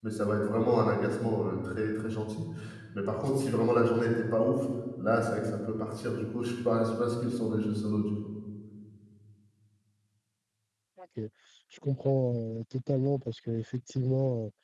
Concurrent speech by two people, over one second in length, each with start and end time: none

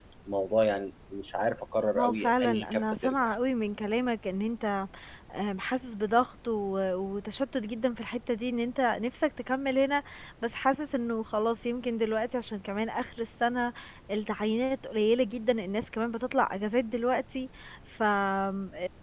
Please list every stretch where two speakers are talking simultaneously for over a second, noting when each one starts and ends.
2.0-3.3

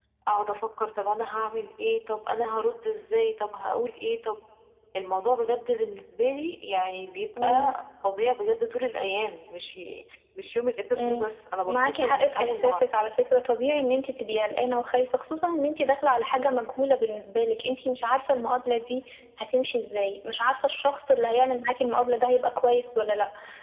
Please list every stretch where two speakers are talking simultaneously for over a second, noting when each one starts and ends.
11.7-12.9

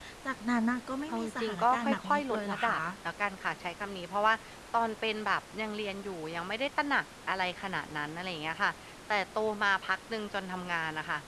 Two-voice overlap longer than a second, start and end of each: 1.1-2.8

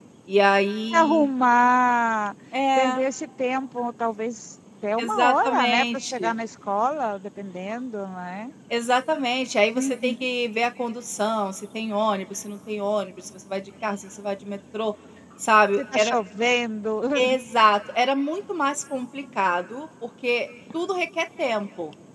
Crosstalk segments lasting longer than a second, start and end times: 5.0-6.3

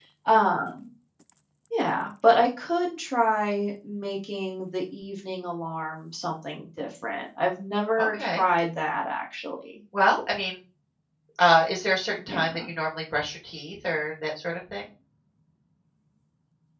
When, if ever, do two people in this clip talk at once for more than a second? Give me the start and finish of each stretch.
none

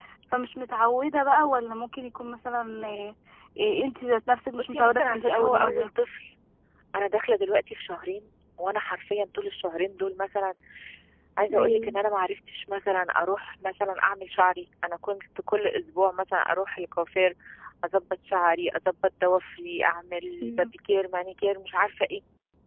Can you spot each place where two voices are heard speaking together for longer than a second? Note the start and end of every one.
4.6-5.9

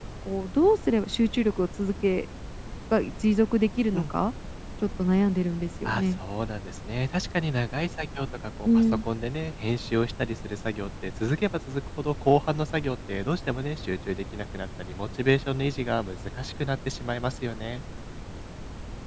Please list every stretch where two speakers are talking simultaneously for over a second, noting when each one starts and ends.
none

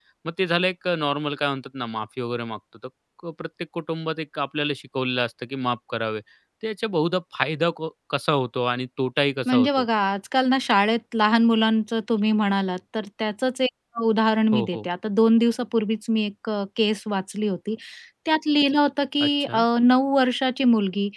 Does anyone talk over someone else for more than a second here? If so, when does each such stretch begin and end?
none

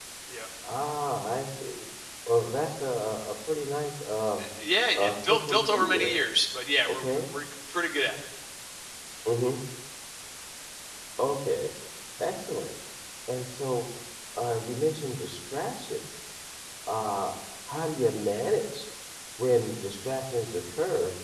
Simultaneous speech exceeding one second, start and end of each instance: 4.9-6.3

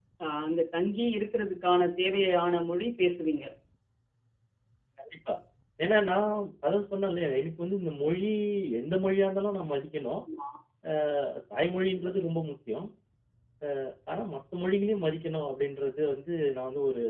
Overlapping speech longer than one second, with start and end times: none

